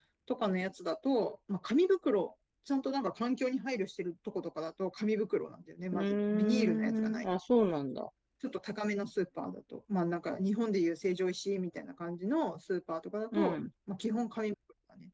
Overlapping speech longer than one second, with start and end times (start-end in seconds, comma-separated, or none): 5.9-7.2